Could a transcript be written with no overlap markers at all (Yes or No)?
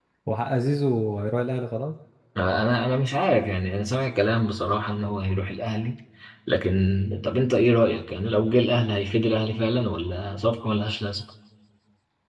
Yes